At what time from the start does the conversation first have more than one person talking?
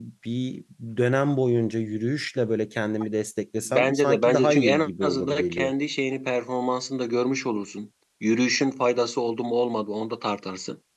3.6 s

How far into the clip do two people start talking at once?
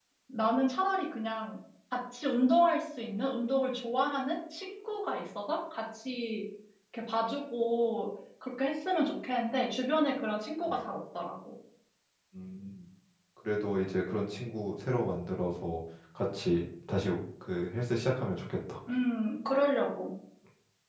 none

